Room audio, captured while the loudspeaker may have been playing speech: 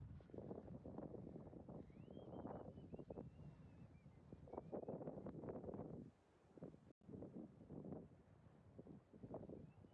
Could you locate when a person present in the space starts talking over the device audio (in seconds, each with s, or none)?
none